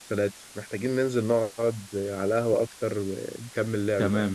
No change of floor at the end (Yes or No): No